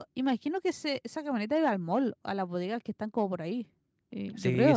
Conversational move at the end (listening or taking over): taking over